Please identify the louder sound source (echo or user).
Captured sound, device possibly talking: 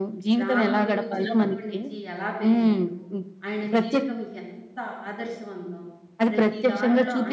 echo